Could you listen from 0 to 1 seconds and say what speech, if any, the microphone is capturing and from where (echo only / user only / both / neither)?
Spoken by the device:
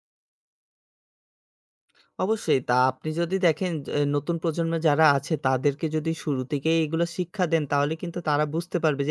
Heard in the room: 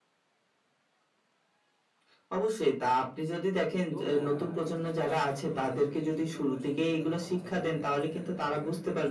neither